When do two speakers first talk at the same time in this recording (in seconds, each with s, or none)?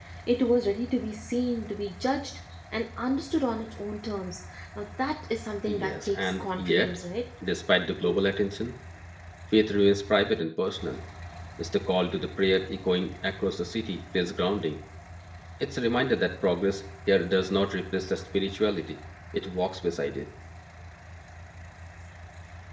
5.7 s